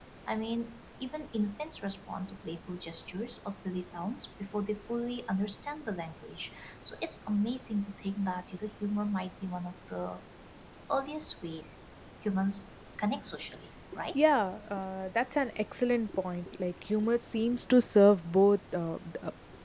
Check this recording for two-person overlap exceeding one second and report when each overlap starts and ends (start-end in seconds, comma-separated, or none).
none